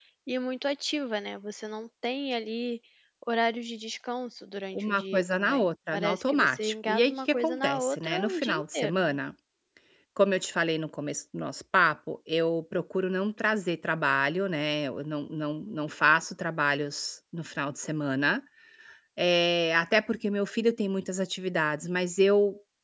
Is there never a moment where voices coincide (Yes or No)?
No